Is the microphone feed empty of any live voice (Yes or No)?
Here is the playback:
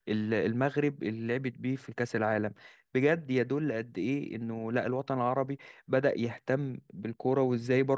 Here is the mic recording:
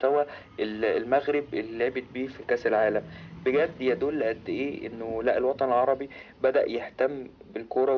Yes